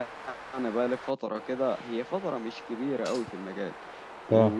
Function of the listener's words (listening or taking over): listening